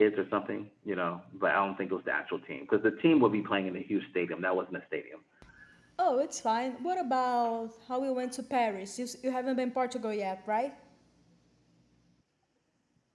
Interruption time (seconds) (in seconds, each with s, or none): none